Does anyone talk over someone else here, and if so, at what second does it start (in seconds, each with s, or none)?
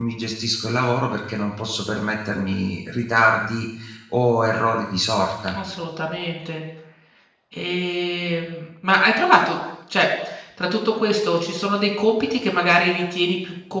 none